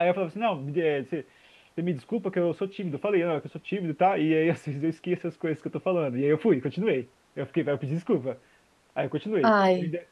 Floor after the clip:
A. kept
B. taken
A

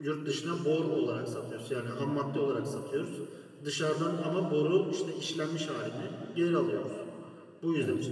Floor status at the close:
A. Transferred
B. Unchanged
B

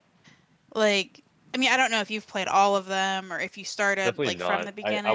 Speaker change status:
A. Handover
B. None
A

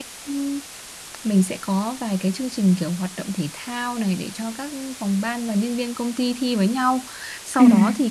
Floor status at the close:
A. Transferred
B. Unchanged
B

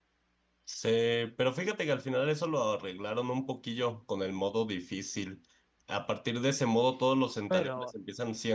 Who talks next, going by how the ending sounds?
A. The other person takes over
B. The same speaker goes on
B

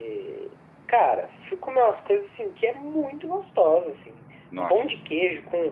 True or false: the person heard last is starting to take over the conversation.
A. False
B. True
A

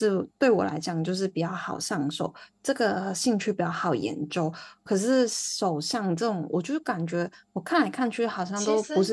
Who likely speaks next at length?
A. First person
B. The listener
A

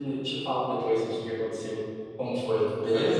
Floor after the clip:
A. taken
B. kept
A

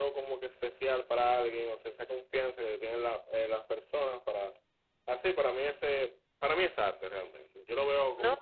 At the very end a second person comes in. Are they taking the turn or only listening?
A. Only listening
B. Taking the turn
B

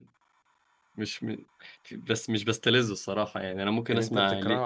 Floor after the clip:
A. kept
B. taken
B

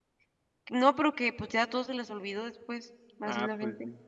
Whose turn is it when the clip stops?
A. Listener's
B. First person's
A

